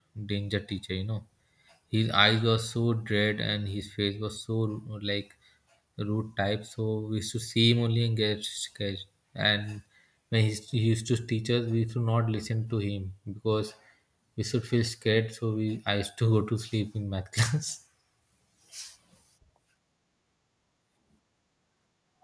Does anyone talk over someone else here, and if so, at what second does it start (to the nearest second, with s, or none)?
none